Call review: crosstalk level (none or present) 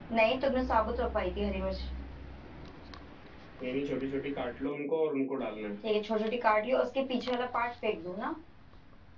none